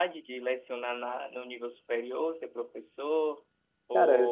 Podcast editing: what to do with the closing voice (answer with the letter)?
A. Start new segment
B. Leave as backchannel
B